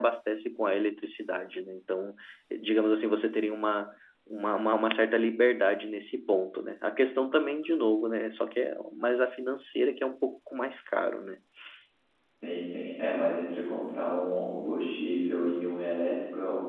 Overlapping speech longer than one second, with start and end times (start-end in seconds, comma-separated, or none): none